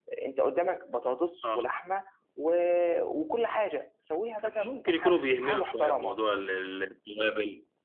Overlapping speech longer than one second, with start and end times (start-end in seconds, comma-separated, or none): 4.4-6.2